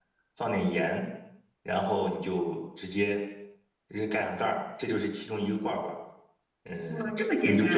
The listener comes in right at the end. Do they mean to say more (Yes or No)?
Yes